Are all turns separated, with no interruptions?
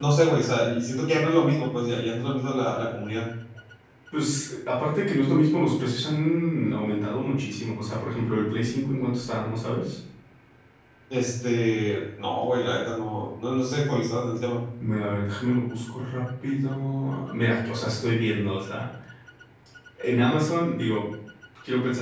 Yes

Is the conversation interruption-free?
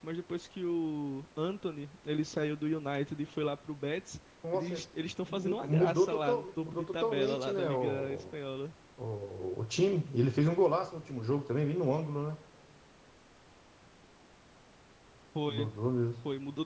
No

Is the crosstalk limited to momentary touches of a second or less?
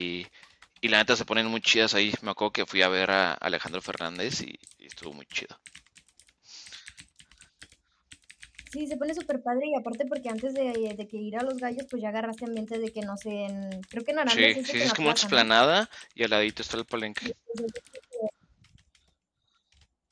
No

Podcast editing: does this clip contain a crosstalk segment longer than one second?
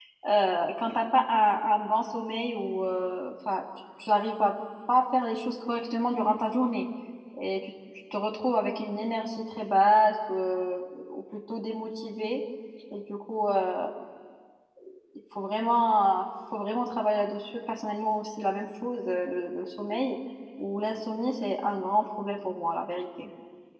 No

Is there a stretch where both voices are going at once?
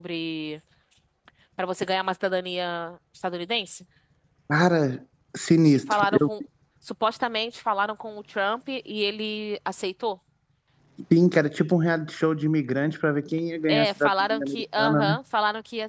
Yes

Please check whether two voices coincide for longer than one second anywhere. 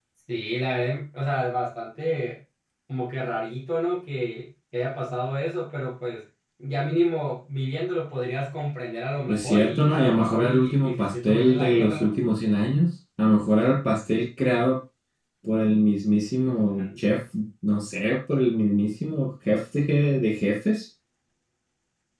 Yes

